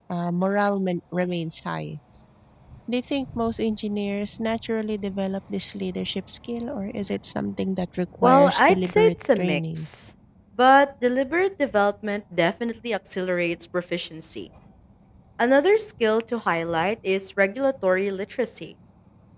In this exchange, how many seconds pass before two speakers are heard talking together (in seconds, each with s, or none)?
8.2 s